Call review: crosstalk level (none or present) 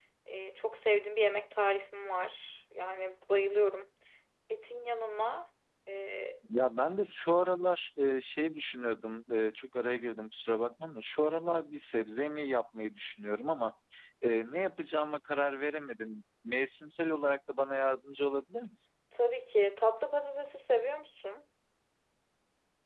none